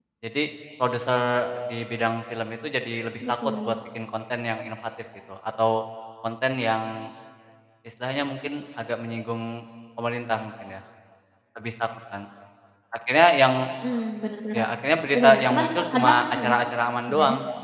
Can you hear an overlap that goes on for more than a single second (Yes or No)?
Yes